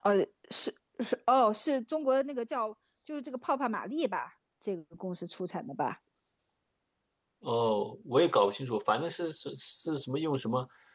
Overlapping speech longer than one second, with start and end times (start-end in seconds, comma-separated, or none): none